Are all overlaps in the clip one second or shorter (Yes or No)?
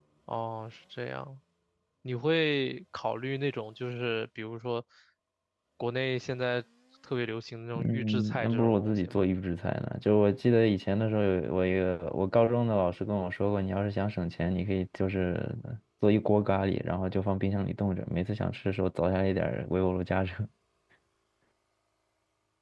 No